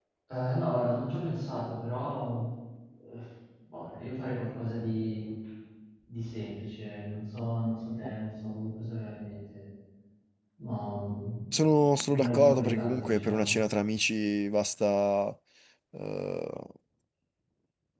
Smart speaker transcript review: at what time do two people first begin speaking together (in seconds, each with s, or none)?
12.1 s